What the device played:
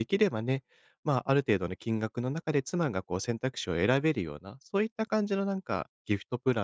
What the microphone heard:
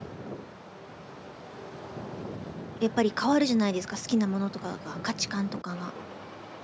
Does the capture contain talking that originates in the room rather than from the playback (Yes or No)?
Yes